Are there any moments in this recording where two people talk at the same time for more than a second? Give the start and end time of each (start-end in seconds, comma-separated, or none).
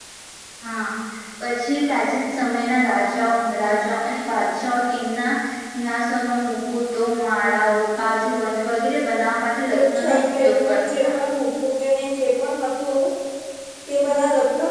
9.7-11.0